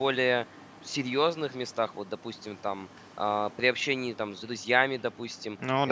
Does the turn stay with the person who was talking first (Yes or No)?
Yes